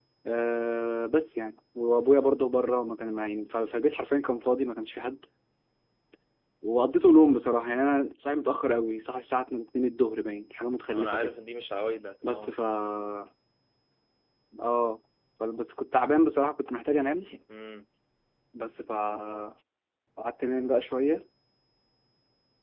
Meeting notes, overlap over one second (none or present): none